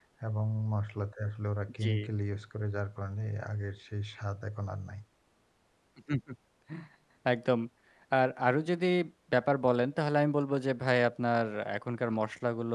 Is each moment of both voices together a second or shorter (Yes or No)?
Yes